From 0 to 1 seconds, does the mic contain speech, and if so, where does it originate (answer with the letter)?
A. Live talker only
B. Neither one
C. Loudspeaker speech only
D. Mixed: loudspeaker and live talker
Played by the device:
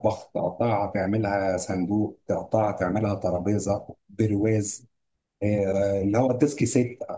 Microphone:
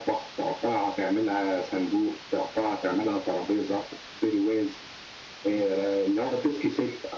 C